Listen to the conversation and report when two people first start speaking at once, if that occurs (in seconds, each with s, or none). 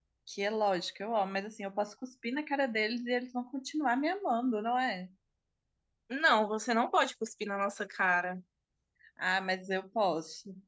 none